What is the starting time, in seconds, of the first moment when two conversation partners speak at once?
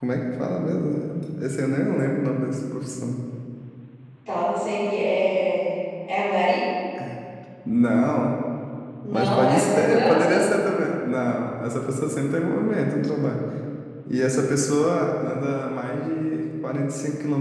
9.1 s

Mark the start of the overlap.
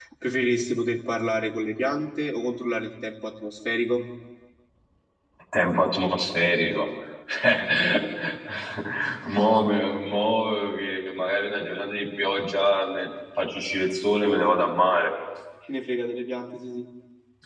none

